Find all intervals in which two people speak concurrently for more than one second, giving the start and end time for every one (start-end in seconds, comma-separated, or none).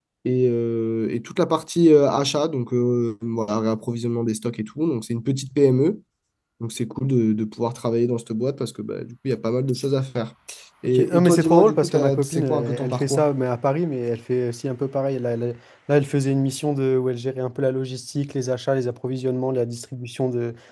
10.8-13.3